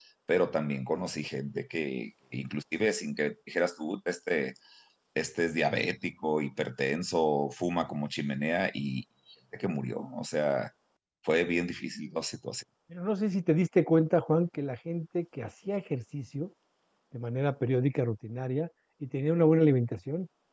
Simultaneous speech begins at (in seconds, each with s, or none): none